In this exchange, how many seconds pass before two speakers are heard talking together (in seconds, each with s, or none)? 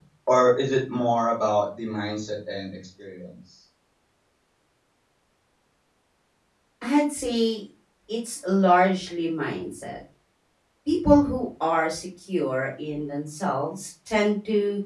none